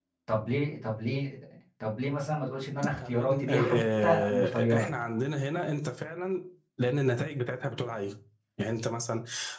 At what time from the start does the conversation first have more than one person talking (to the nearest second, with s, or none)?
3 s